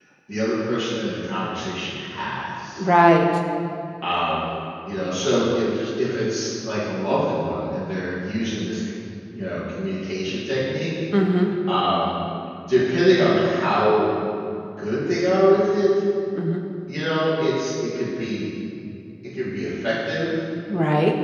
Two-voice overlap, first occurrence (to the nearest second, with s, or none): none